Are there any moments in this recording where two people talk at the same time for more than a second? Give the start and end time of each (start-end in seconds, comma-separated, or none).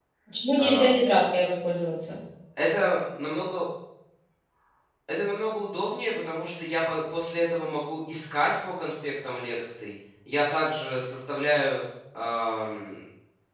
none